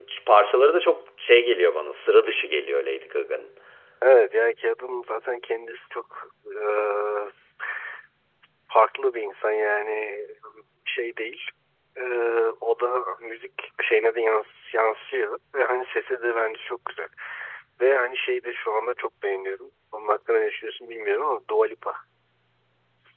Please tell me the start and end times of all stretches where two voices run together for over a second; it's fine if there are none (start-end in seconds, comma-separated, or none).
none